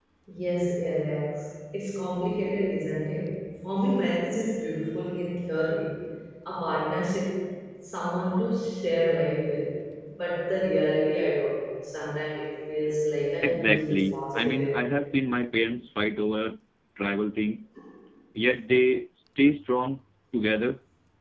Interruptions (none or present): present